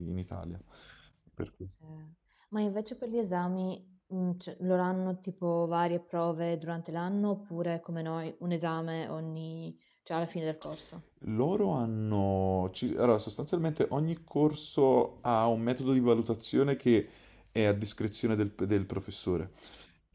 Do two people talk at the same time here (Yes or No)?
No